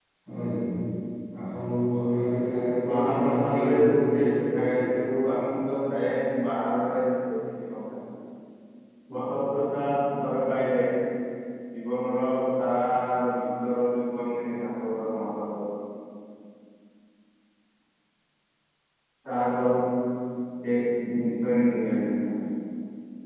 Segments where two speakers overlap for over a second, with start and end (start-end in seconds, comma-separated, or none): 2.9-5.0